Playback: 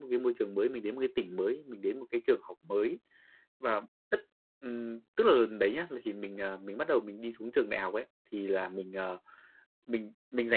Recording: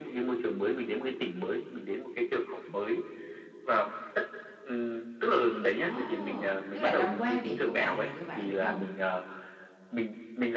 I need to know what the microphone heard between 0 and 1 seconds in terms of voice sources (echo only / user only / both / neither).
echo only